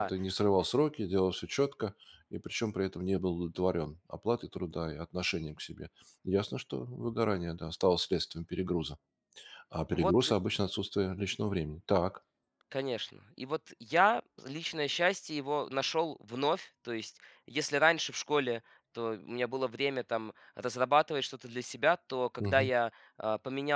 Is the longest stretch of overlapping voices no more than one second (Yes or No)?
Yes